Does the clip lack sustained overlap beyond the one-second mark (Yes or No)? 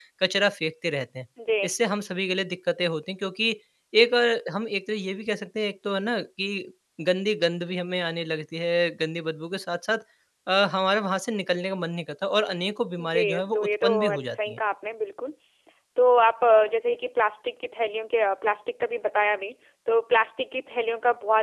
No